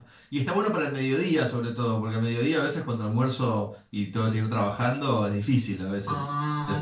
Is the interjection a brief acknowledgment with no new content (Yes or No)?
No